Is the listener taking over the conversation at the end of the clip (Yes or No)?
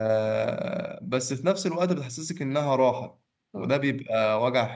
No